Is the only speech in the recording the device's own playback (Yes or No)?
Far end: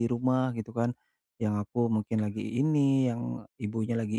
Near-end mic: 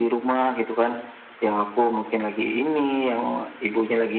Yes